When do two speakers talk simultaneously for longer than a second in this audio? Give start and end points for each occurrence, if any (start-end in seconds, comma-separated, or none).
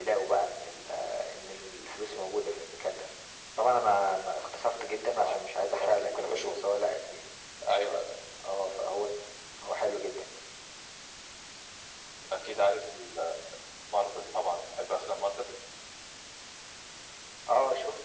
5.2-6.6